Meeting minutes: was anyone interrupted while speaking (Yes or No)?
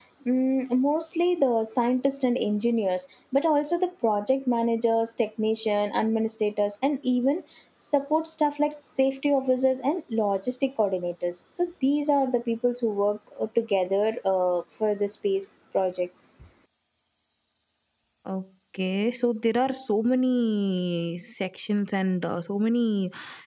No